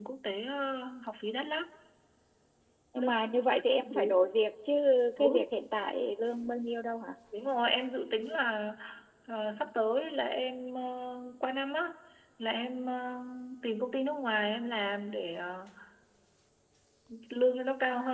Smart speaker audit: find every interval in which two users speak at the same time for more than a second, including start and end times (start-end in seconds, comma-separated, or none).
none